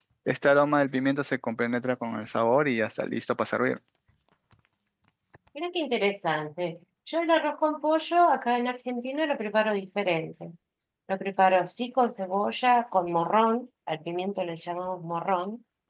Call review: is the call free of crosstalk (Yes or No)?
Yes